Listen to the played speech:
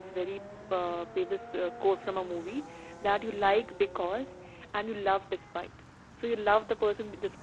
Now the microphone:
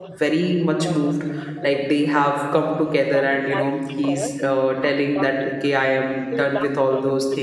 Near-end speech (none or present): present